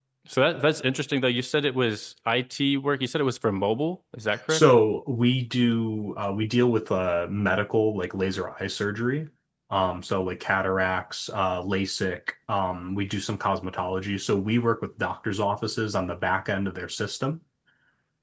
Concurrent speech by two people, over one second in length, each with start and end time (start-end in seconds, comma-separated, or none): none